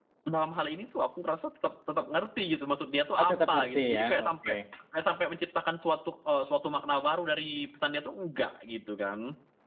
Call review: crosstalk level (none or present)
present